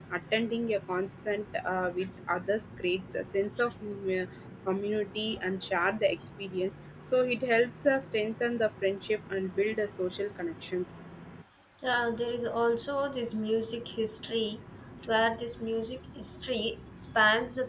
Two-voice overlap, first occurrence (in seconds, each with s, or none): none